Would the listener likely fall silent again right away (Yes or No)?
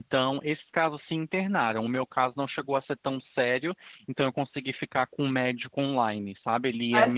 No